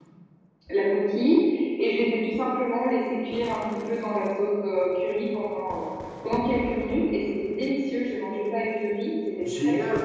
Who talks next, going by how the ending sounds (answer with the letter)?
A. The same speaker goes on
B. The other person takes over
B